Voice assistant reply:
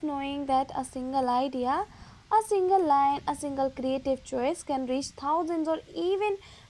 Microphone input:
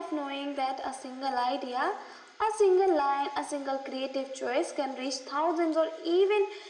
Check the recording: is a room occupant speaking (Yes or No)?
No